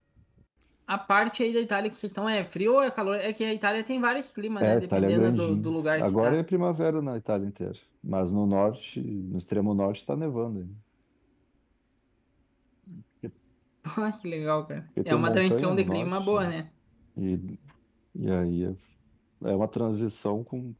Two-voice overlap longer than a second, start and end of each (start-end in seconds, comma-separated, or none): 4.6-6.4, 15.1-16.5